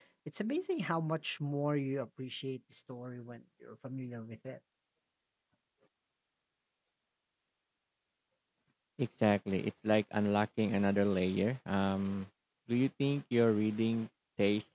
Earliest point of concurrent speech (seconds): none

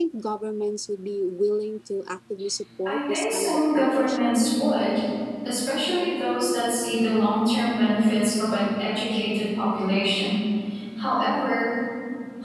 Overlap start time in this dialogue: 2.9 s

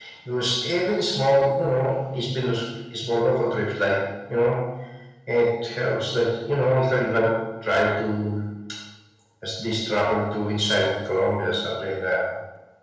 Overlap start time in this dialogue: none

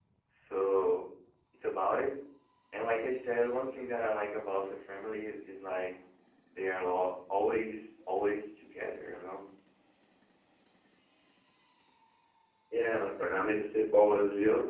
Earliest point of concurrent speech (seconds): none

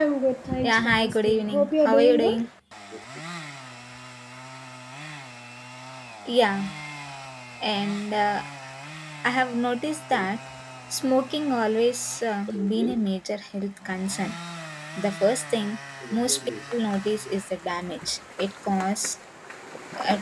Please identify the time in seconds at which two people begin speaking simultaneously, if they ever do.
0.6 s

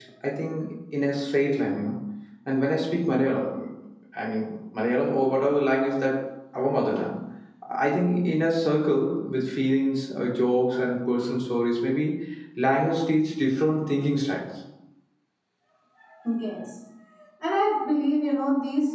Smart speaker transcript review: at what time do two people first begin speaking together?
none

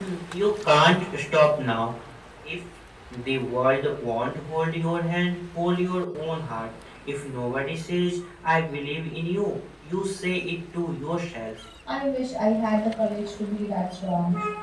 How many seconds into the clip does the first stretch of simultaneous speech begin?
none

